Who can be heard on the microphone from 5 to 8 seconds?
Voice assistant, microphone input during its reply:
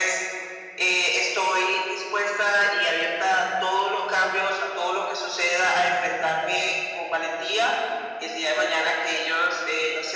echo only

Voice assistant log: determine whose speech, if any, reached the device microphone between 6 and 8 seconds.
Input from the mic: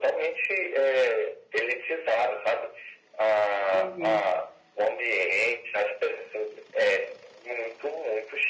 echo only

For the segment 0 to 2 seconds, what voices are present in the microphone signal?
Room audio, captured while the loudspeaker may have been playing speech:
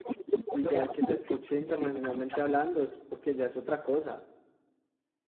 both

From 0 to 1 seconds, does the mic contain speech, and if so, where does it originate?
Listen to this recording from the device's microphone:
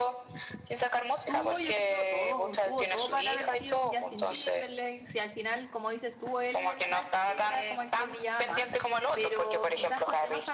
echo only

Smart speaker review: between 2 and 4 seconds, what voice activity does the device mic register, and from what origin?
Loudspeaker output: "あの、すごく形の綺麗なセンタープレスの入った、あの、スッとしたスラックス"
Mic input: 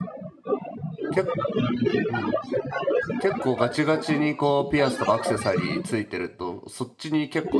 both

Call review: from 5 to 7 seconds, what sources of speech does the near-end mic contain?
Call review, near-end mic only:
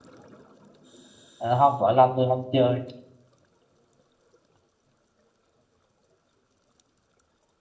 neither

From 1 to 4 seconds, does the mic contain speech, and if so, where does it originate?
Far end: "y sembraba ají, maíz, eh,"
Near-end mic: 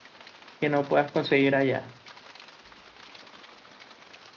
user only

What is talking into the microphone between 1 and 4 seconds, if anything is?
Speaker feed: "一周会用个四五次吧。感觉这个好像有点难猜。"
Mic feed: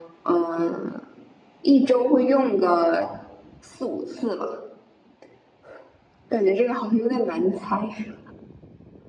echo only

